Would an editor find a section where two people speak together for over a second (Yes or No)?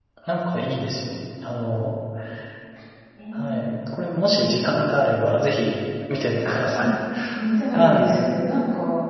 No